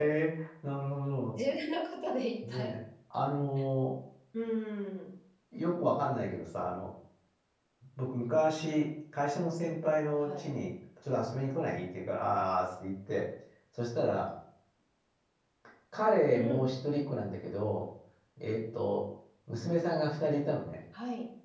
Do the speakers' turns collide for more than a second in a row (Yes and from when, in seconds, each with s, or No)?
No